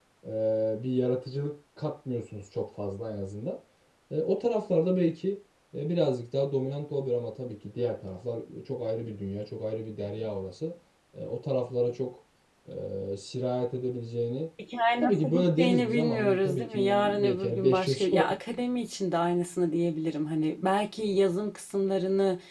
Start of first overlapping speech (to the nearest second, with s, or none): 15 s